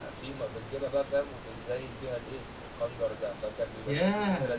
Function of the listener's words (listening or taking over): taking over